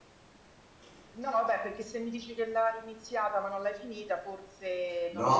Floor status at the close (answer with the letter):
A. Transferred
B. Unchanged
A